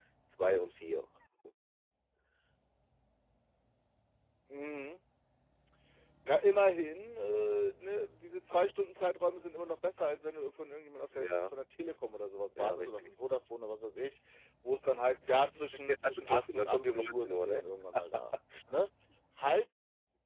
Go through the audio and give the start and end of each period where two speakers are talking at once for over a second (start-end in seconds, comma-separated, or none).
15.9-17.6